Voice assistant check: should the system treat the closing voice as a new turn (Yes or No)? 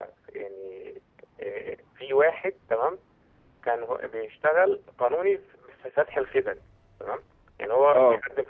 No